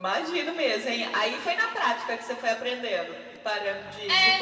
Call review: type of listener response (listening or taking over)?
taking over